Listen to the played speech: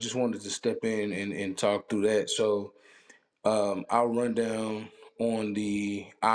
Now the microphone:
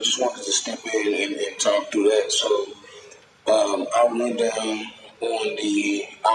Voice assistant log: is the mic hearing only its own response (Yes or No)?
Yes